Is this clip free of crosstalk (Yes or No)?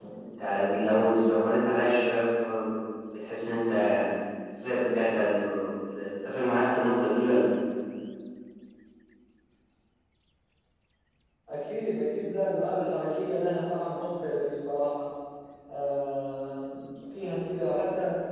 Yes